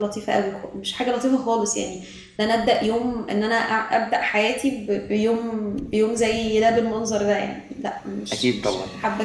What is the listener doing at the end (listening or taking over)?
taking over